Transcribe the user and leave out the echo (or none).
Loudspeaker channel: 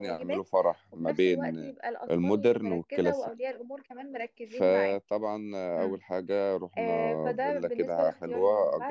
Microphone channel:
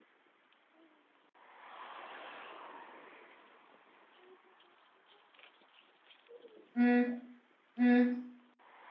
مم. مم.